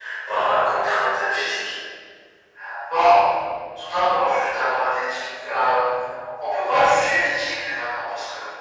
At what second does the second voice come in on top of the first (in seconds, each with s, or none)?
none